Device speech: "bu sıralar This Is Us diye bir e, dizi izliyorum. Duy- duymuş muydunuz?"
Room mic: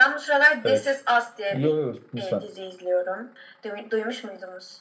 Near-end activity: present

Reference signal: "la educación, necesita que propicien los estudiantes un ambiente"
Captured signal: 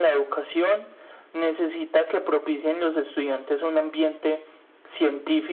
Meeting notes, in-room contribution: none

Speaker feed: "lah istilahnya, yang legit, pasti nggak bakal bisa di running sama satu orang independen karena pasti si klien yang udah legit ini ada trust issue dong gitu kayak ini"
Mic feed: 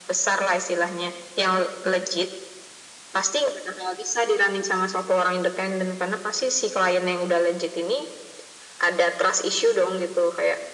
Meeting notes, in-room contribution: none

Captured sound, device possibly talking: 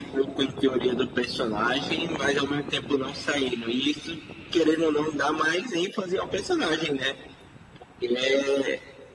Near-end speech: none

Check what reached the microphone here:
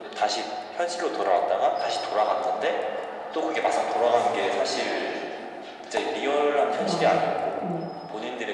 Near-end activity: present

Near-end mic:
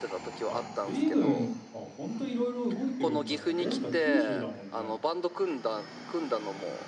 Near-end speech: present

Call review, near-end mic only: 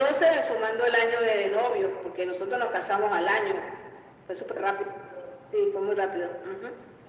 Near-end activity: none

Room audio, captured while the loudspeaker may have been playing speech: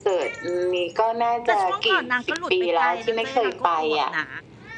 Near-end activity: present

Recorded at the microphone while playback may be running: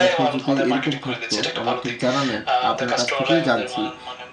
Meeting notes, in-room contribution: present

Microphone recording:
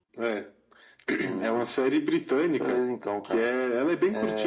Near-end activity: none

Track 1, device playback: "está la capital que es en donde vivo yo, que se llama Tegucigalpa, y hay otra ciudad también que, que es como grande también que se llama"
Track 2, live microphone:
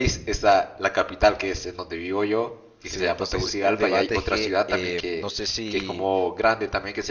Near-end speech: present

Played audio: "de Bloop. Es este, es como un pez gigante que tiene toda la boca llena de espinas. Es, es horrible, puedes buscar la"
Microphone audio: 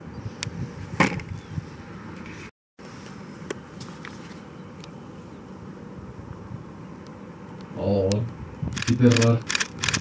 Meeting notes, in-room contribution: present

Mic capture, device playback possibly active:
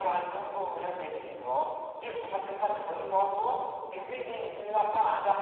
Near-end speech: none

